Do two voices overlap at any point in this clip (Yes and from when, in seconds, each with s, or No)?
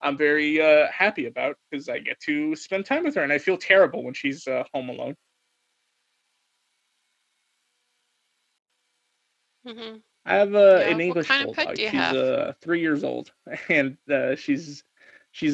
Yes, from 10.7 s